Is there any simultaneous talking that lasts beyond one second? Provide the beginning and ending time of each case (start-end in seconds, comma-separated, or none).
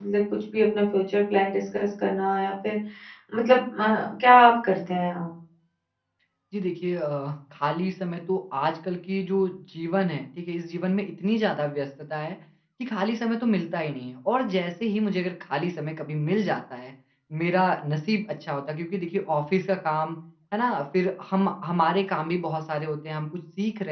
none